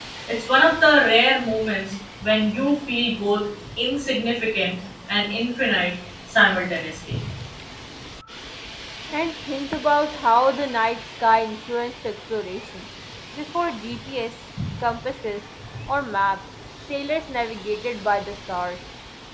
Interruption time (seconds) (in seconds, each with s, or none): none